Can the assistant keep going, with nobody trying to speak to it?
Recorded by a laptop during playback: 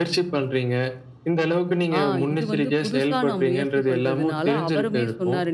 No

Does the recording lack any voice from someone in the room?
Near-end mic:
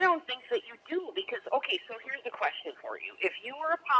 Yes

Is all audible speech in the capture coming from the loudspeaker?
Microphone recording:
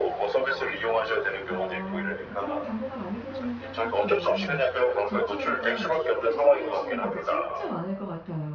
No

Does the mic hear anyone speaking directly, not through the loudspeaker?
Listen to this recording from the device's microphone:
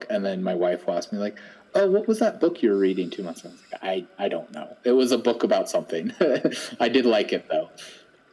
No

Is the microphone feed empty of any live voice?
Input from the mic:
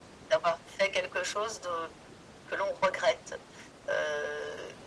Yes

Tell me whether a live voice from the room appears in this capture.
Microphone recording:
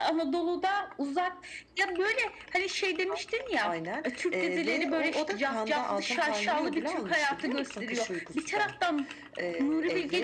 No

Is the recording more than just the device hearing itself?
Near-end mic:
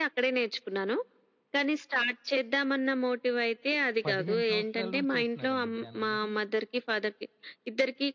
Yes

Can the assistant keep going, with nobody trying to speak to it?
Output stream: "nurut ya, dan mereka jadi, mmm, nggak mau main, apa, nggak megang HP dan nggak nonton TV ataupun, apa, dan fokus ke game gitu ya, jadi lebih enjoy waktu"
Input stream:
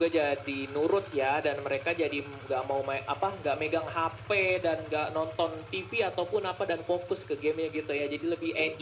Yes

